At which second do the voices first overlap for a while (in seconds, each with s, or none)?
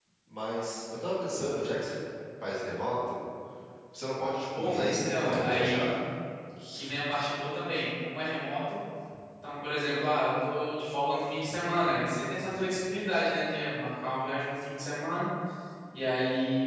4.6 s